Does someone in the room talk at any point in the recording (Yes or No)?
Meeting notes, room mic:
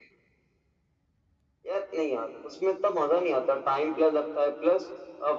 No